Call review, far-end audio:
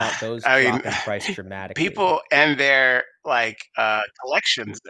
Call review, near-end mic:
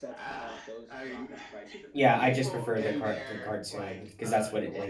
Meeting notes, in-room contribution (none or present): present